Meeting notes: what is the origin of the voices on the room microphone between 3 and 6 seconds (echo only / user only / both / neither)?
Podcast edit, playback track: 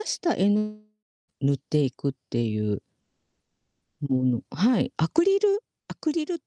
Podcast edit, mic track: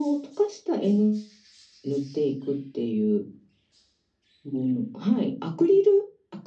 echo only